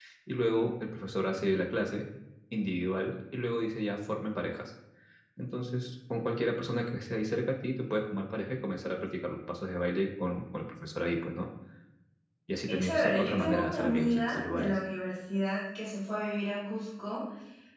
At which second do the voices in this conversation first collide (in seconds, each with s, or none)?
12.7 s